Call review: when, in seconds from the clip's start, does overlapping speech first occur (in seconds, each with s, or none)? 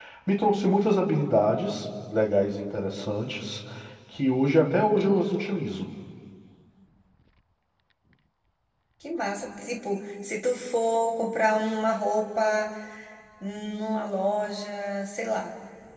none